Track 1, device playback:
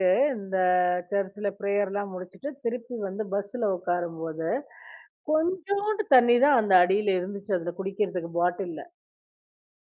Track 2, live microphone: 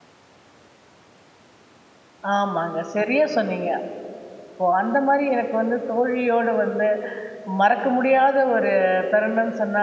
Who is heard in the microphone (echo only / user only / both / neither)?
user only